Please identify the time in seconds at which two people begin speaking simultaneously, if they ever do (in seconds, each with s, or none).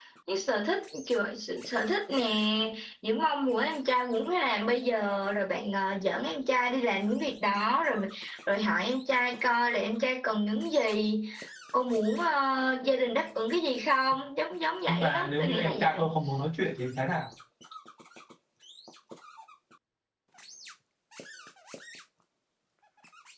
14.9 s